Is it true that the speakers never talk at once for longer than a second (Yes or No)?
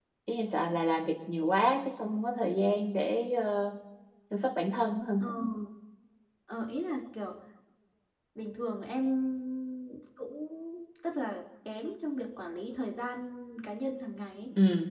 Yes